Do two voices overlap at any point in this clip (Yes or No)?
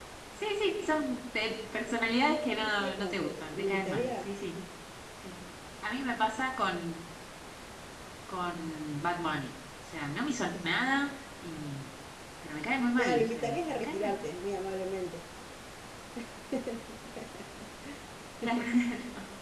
Yes